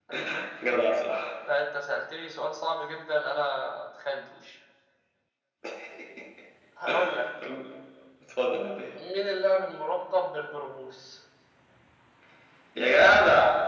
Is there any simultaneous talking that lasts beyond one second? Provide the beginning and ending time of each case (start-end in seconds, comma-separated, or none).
none